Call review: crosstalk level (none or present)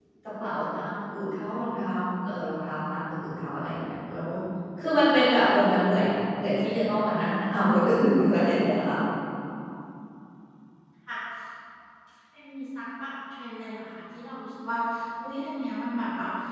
none